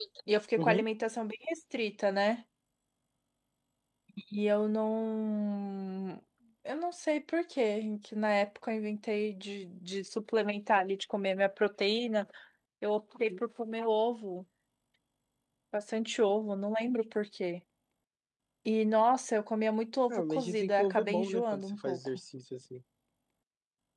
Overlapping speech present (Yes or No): Yes